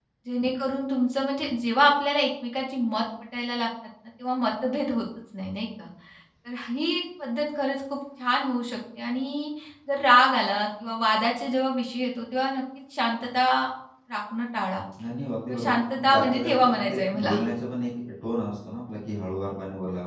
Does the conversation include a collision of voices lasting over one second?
Yes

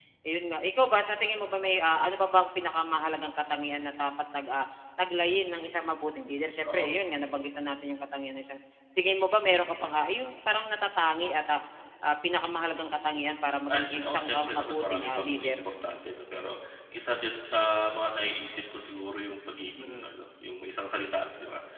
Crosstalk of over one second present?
Yes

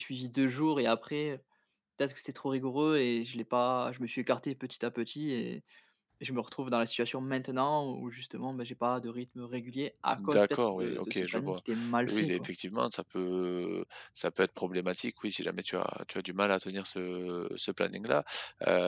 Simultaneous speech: Yes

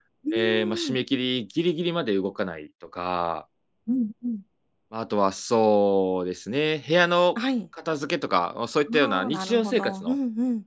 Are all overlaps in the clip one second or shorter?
No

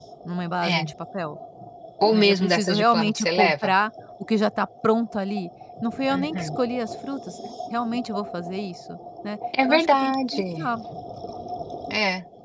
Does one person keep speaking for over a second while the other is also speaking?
Yes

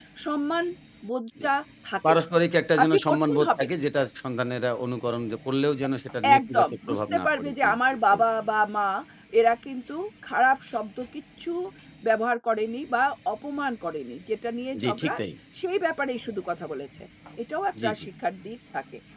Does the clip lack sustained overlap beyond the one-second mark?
No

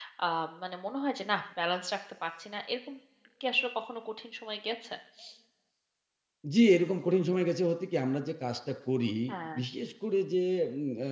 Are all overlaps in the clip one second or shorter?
Yes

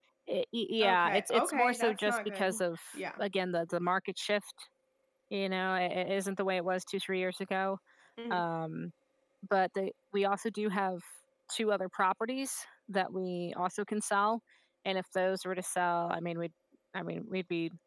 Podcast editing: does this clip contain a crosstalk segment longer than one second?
Yes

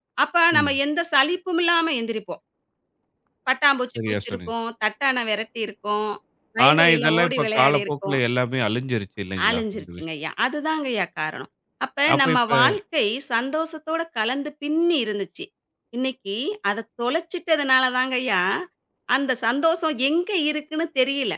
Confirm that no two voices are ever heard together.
No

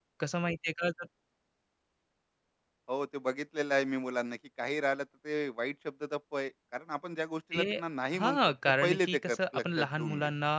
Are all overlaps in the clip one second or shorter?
No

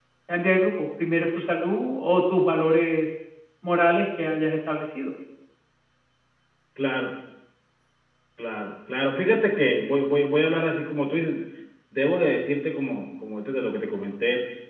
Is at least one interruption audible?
No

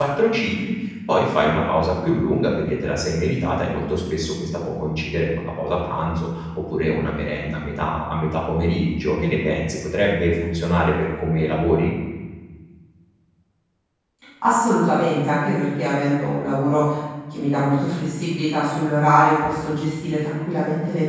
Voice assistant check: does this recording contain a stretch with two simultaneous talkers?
No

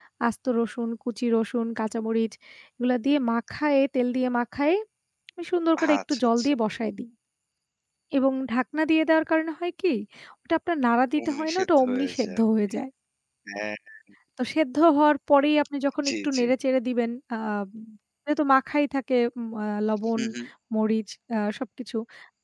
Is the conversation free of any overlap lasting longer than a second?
No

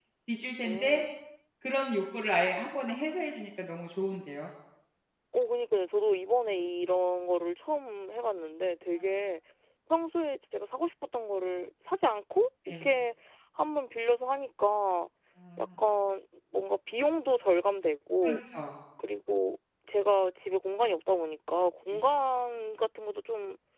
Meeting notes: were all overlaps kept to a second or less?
Yes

